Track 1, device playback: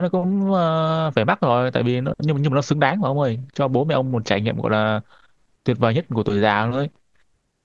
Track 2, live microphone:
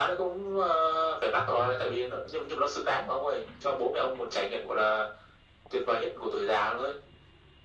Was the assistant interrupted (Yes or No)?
Yes